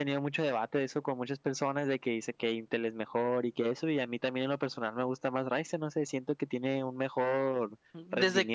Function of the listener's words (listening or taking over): taking over